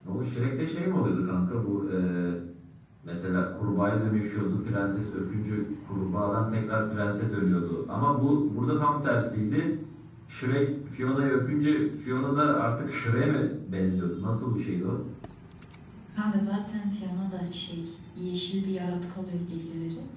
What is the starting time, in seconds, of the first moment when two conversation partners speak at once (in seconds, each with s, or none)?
none